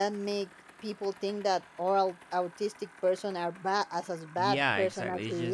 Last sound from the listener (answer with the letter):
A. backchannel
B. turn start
B